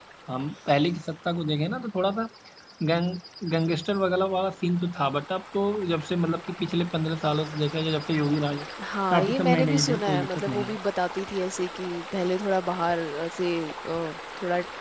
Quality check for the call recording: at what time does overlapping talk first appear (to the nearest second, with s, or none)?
9 s